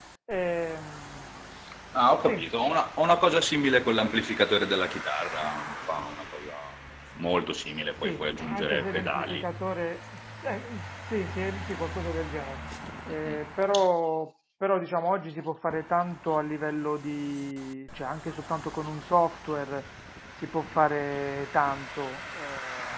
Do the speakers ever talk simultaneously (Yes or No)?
Yes